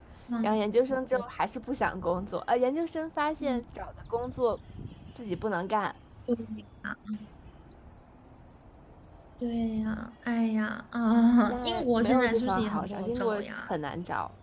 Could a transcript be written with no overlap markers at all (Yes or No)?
No